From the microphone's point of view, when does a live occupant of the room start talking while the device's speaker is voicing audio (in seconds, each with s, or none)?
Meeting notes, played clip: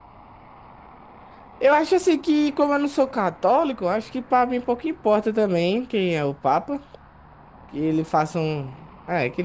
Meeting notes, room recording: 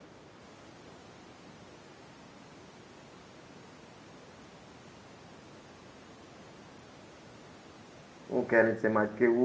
8.3 s